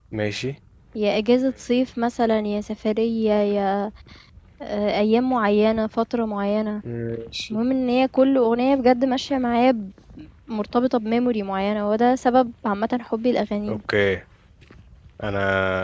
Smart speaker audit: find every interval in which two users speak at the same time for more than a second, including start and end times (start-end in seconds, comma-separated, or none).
none